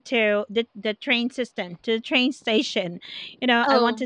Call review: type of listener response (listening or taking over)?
listening